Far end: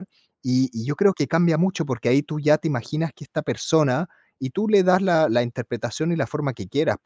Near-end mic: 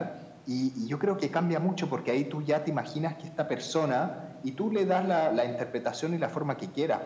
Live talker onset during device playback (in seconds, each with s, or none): none